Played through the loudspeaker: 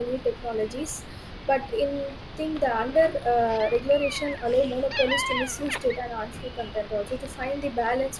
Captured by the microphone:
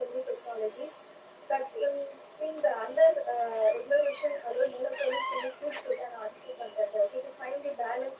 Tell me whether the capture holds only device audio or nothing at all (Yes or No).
Yes